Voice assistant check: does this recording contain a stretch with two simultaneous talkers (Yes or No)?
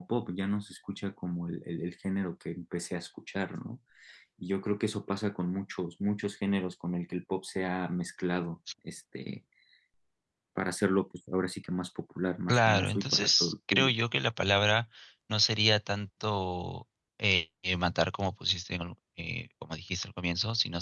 Yes